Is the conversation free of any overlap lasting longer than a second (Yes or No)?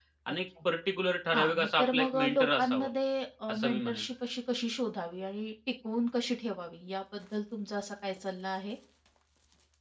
No